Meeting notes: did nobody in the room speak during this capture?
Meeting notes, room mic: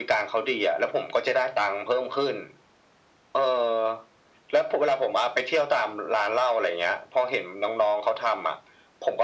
Yes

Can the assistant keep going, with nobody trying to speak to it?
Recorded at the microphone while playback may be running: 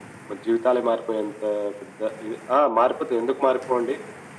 Yes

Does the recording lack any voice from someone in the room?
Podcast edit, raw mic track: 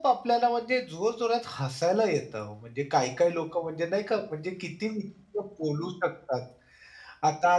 Yes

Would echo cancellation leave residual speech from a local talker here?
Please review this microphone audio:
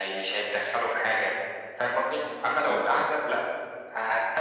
Yes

